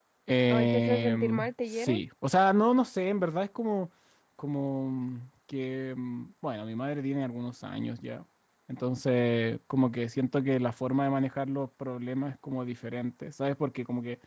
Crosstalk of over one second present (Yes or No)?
Yes